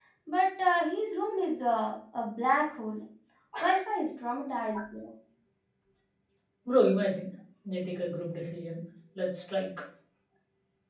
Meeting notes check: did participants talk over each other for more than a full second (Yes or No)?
No